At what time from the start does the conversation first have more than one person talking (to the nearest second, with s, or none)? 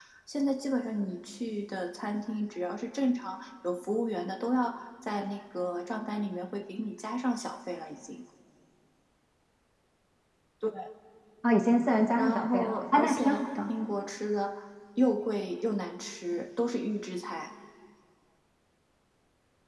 12 s